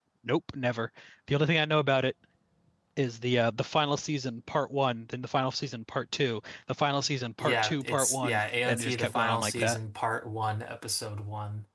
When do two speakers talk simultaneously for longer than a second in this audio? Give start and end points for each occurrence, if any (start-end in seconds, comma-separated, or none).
7.4-9.8